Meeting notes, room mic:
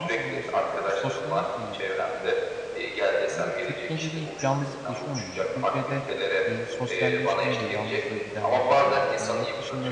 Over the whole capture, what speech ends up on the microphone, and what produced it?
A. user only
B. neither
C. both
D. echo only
C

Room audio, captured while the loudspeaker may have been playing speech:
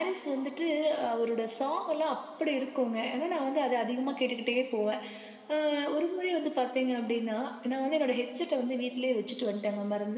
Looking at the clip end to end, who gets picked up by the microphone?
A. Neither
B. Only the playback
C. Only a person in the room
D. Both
B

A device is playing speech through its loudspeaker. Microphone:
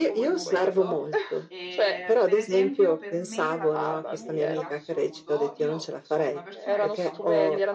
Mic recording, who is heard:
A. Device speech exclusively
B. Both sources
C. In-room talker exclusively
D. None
B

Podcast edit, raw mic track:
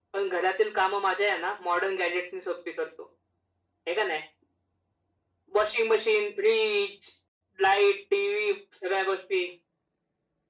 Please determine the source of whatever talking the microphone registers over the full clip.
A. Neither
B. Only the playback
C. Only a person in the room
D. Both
B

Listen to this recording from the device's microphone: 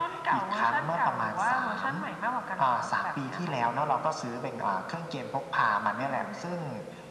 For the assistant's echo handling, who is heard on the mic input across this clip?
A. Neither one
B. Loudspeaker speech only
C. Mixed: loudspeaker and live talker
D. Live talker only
B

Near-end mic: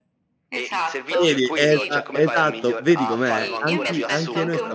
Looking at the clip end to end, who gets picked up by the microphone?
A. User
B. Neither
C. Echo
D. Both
D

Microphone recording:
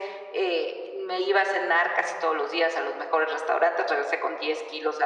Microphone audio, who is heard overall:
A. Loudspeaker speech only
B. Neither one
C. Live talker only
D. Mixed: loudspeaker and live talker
A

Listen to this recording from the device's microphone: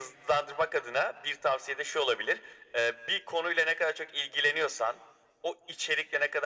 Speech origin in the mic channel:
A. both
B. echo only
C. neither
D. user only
B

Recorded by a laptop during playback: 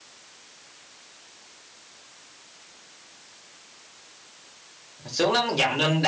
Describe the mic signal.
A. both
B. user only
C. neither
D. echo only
B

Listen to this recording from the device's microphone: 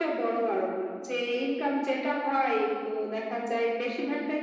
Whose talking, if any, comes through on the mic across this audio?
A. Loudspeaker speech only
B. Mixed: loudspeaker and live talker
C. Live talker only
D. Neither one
A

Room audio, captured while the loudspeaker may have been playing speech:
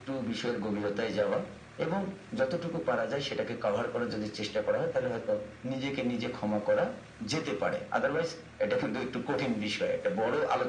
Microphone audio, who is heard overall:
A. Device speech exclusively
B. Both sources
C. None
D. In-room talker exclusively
A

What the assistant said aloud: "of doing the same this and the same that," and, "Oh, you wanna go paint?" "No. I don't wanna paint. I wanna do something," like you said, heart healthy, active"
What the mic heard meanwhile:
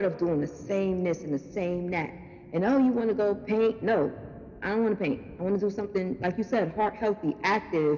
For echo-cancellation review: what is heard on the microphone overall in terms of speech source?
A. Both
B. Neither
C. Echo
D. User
C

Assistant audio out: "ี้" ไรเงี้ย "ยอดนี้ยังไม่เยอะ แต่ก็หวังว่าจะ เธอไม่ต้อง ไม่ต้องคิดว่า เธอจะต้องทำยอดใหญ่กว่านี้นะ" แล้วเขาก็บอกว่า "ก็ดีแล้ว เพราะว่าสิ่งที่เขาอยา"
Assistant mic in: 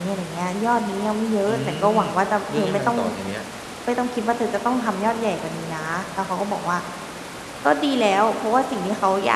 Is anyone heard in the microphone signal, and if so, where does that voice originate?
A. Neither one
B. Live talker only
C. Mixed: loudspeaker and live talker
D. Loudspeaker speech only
C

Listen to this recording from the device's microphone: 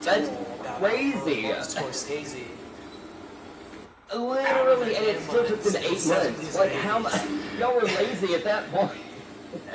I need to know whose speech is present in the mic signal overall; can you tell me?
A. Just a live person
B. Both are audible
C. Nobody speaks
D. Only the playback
B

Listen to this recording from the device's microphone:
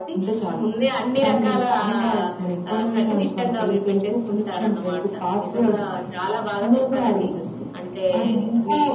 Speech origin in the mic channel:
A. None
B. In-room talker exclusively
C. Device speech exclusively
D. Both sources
C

